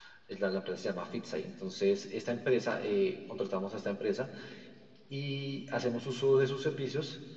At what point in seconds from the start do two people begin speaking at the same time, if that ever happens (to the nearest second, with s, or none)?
none